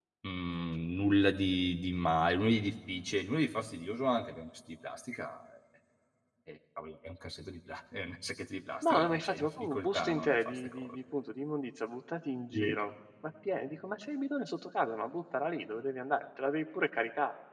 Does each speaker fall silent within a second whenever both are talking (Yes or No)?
No